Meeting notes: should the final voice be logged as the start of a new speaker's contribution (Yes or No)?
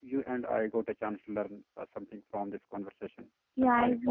Yes